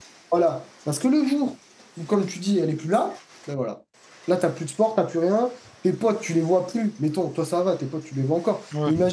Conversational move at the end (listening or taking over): listening